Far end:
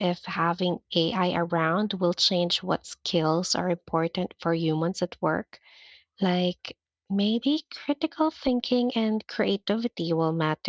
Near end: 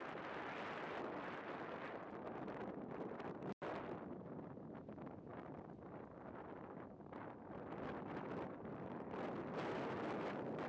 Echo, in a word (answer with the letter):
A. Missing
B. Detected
A